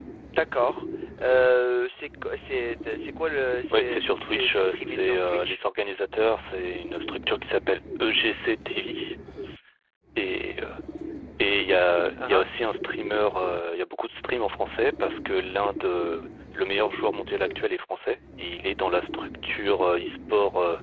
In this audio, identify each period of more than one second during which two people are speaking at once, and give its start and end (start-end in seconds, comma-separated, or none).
3.7-5.6